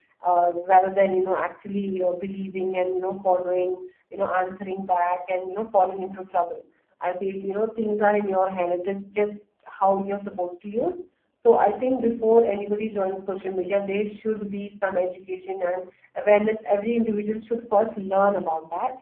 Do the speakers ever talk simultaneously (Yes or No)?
No